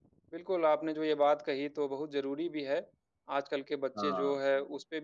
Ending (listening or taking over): listening